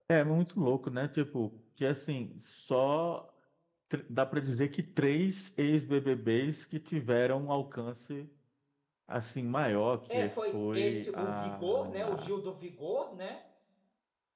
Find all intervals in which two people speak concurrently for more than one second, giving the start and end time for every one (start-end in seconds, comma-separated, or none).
10.1-12.3